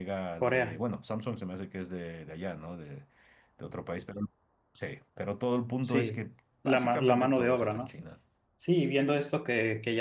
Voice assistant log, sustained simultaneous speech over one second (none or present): present